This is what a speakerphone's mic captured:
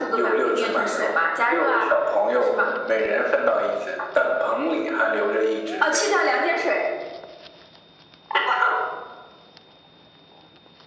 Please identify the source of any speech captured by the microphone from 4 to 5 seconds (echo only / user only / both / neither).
echo only